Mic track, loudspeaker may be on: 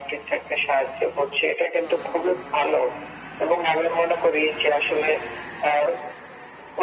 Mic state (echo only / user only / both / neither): echo only